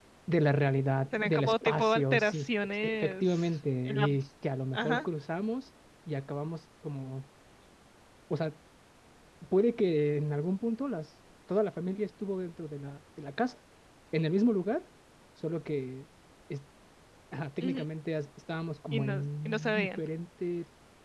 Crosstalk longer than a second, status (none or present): present